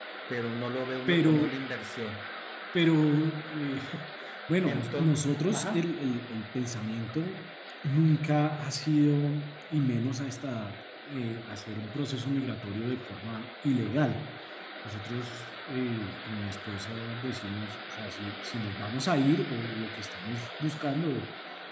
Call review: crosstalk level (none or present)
present